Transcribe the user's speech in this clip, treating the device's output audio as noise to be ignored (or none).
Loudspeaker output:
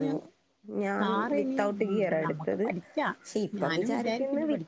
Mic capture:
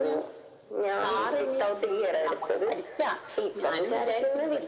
none